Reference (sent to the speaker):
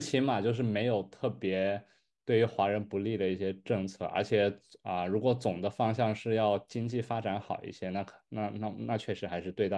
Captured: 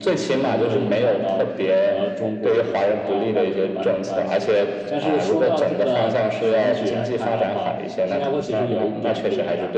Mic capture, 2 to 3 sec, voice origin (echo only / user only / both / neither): both